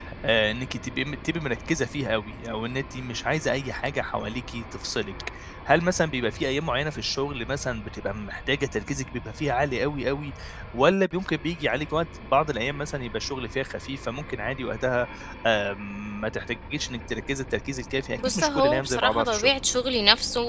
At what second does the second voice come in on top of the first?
18 s

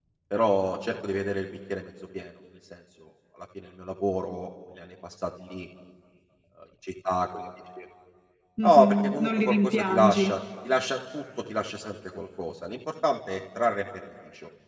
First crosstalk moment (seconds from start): 9 s

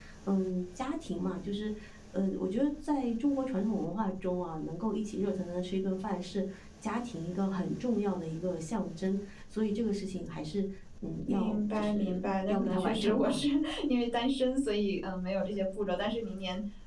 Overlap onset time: 11 s

